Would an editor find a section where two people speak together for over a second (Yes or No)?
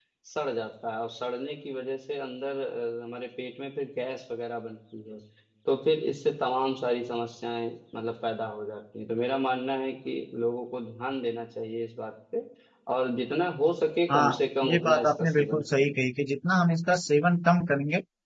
Yes